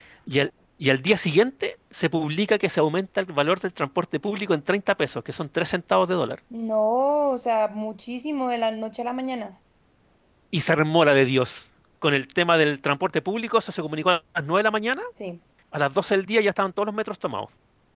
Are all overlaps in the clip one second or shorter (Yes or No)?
Yes